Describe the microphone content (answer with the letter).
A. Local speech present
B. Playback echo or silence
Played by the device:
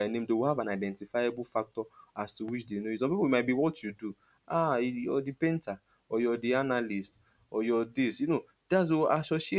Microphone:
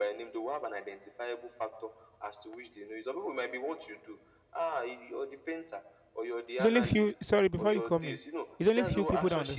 A